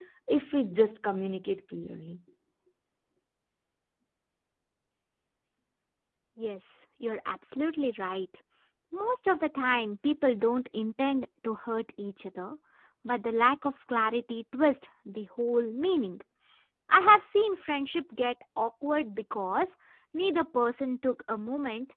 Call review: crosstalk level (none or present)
none